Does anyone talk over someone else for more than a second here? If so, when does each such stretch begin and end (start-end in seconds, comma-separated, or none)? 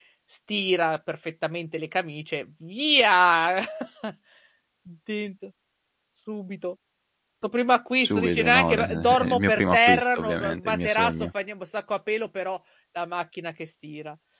8.0-11.3